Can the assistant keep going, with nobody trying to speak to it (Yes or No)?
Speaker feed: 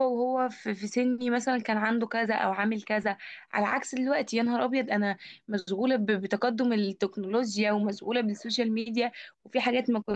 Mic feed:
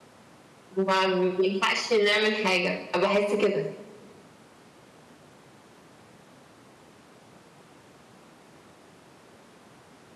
No